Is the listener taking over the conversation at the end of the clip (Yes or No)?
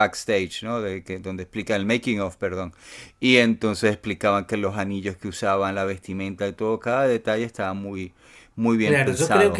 Yes